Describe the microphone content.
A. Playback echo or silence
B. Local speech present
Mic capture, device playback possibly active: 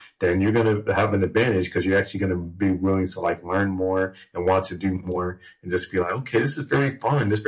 A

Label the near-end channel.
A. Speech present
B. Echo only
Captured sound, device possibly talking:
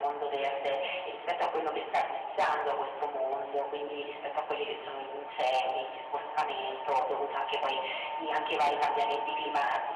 B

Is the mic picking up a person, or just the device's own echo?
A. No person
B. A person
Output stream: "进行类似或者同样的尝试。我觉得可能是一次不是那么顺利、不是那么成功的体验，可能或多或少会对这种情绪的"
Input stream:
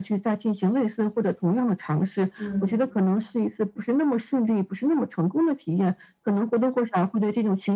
B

